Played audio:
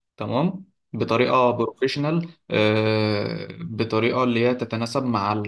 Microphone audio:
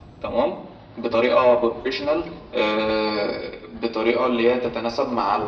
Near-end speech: none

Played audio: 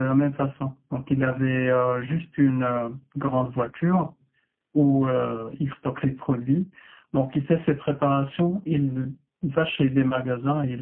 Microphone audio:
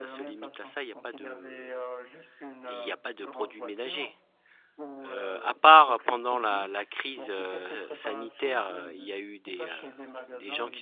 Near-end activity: present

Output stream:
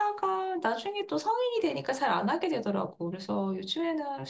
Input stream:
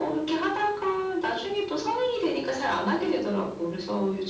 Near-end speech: none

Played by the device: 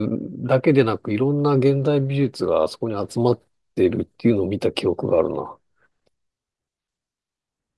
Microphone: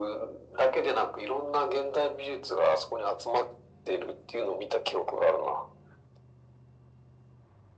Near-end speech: none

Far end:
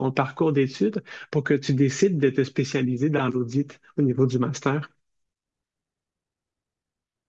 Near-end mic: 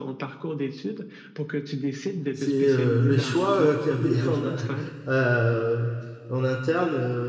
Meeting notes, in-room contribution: present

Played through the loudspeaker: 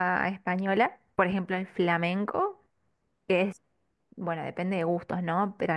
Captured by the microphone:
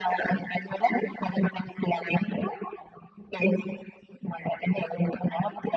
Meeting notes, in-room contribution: none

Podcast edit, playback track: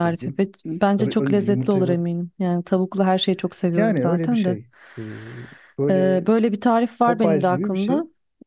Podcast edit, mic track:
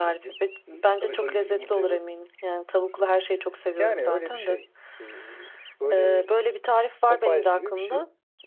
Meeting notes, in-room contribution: none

